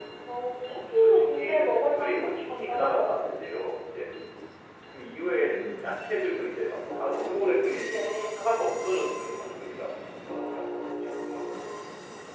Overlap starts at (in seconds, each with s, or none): 0.7 s